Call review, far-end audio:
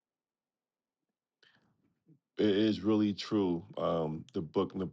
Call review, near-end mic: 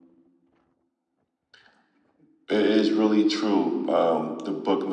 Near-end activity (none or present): none